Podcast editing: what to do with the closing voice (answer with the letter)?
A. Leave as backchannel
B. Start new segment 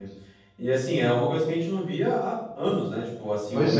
A